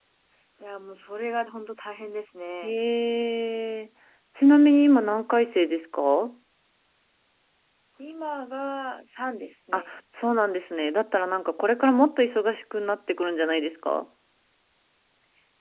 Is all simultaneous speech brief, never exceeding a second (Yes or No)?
Yes